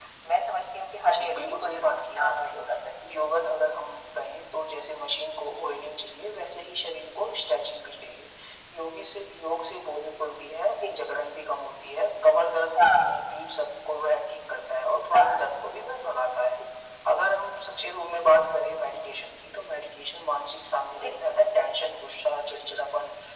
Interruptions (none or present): present